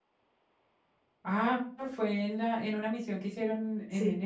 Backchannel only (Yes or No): No